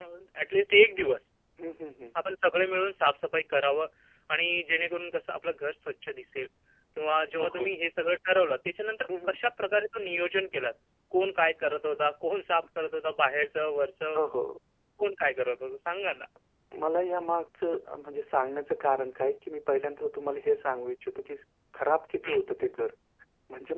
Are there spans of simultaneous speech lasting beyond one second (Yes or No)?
No